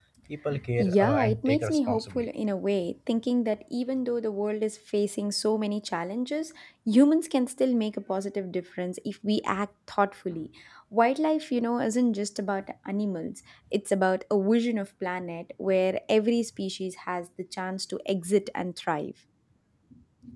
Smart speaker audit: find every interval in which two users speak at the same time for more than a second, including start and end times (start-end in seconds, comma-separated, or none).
0.8-2.3